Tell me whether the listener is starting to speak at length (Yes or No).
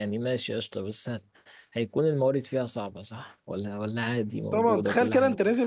Yes